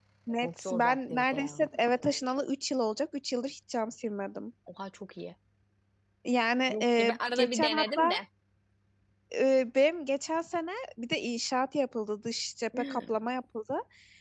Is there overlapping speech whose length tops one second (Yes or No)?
Yes